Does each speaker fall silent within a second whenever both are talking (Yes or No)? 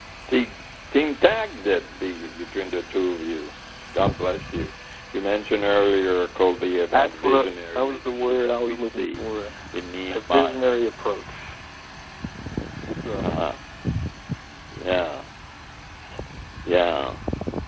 No